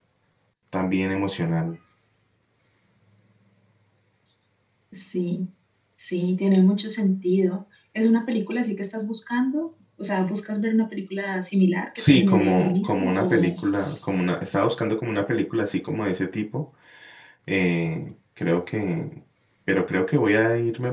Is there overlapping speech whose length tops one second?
Yes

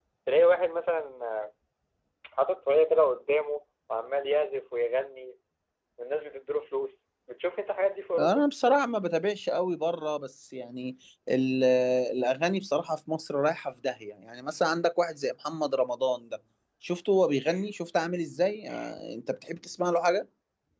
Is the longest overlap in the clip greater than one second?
No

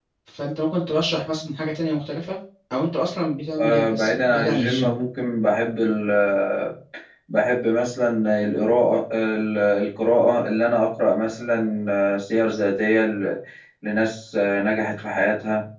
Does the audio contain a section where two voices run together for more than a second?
Yes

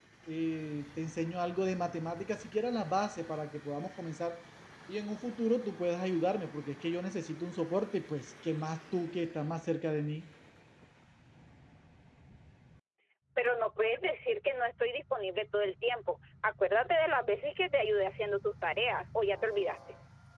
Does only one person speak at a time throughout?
Yes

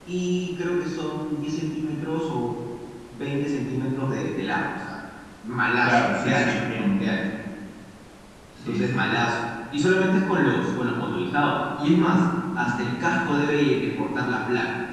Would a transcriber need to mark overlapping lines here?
Yes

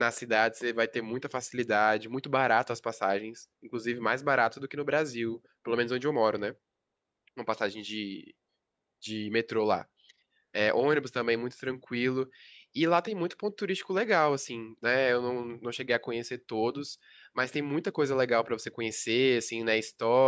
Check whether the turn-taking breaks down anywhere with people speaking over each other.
No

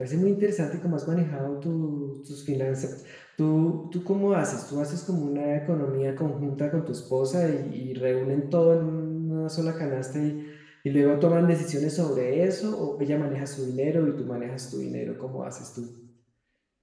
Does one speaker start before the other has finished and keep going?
No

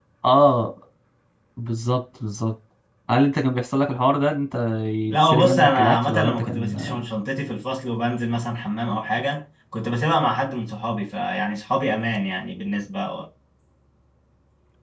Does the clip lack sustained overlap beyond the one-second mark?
No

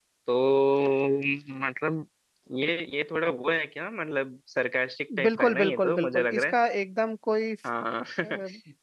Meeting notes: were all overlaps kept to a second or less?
No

